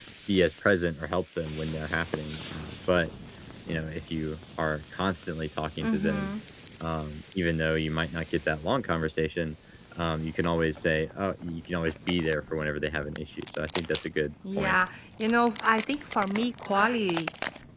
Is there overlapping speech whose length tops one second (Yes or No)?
No